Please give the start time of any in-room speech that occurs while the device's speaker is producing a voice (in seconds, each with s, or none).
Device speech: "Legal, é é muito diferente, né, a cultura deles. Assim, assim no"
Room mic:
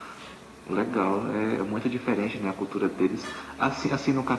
none